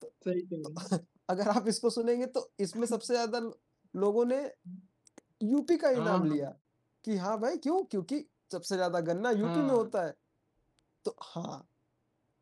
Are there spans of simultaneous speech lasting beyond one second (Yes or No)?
No